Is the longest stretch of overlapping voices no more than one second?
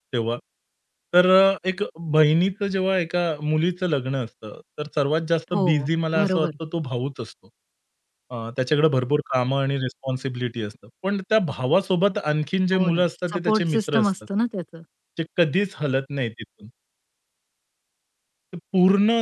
No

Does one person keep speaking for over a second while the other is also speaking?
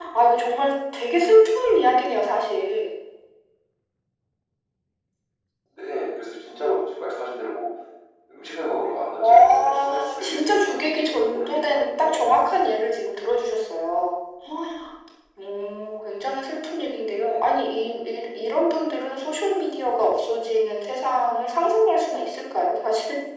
Yes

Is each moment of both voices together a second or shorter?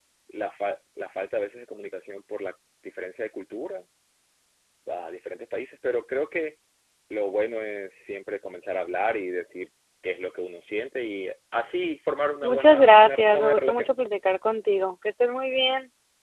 No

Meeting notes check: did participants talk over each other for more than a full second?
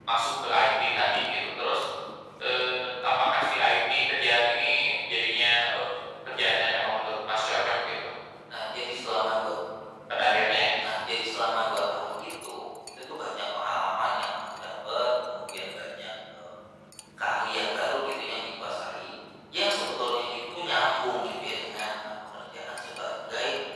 No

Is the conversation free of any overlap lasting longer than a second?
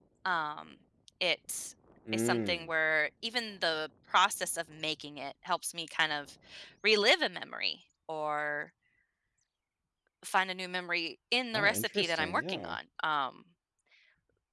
No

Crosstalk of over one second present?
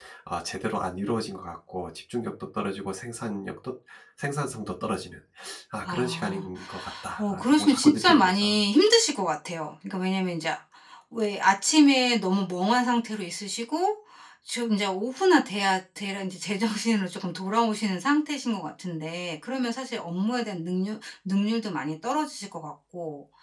Yes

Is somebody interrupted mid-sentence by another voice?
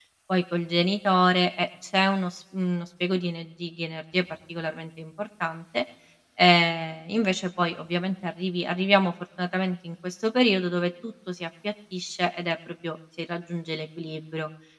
No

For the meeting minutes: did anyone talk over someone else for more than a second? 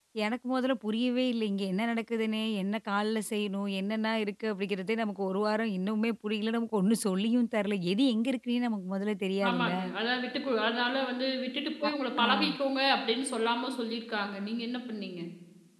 No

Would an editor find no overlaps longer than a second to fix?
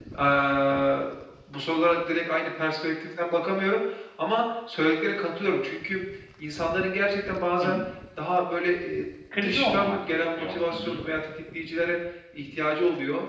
No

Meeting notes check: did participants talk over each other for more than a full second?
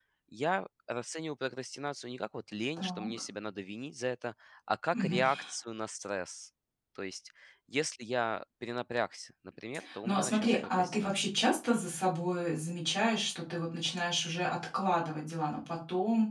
Yes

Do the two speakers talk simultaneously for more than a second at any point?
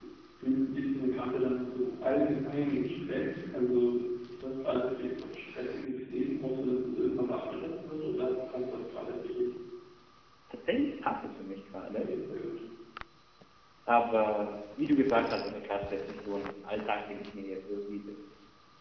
No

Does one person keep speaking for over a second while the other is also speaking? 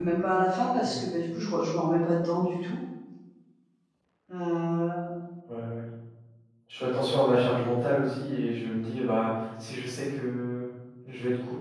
No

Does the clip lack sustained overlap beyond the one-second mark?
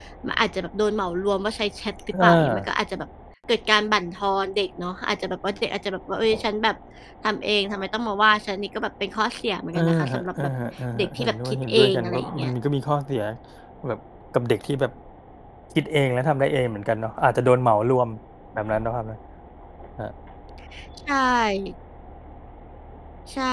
No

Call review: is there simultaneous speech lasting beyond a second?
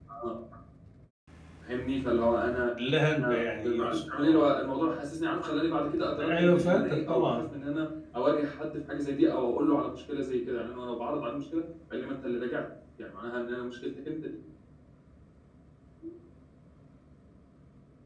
Yes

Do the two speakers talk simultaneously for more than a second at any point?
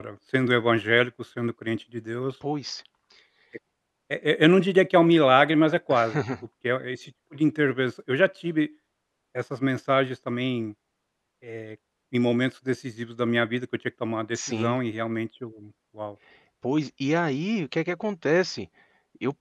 No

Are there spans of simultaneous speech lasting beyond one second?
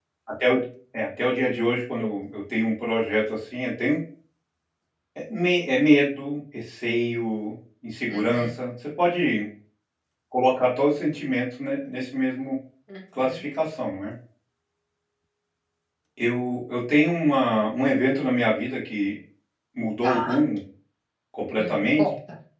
No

